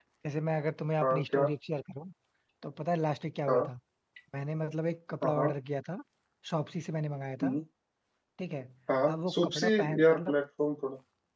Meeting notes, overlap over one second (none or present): present